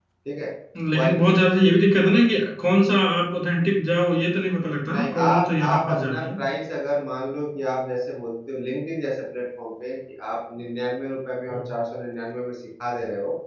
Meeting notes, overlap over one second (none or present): present